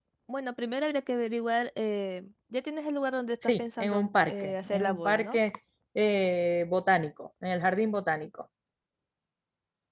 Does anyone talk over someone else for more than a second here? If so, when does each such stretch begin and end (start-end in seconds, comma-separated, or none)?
3.4-5.4